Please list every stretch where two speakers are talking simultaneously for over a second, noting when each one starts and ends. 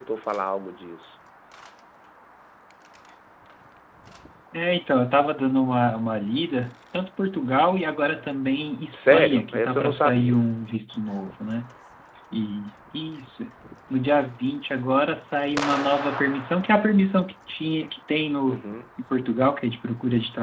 8.9-10.4

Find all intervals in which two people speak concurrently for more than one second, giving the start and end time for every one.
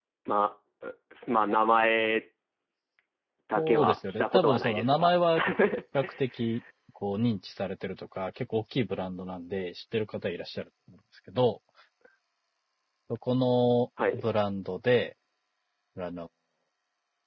3.6-5.2

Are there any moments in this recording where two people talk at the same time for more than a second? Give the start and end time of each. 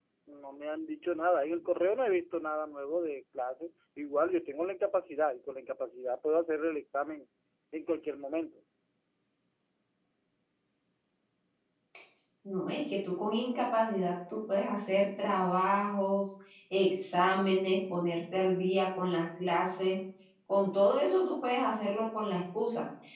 none

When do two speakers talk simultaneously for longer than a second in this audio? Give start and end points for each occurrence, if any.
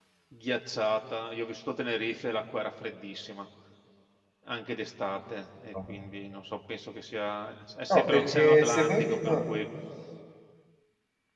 7.9-9.4

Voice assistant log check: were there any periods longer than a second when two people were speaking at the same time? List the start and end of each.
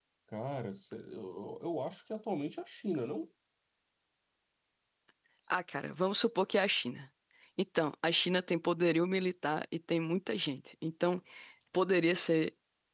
none

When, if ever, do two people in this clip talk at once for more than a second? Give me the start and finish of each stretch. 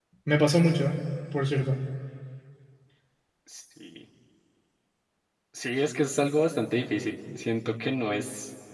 none

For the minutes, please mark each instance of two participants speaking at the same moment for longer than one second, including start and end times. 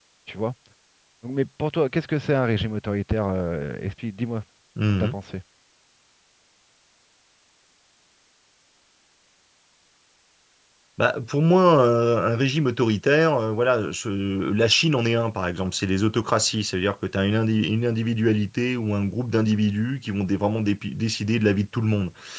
none

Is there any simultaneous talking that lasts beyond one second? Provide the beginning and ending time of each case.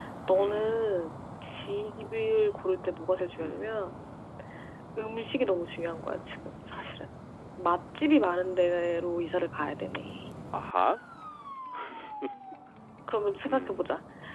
none

